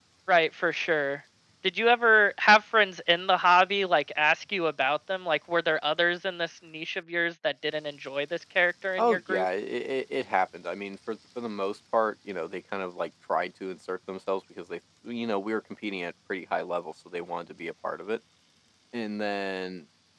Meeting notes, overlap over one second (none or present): none